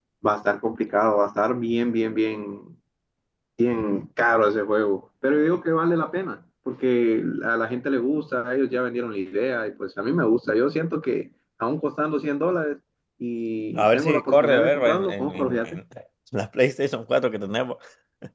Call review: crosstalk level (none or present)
present